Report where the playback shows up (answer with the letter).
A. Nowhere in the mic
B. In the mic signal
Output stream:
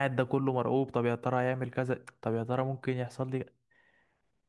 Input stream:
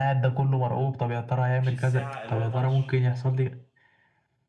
B